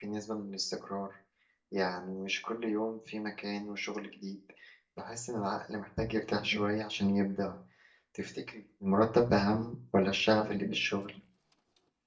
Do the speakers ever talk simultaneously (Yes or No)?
No